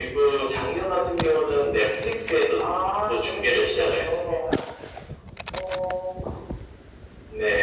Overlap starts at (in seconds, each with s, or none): 3.1 s